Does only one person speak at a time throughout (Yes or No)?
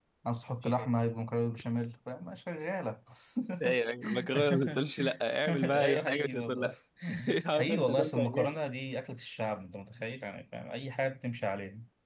No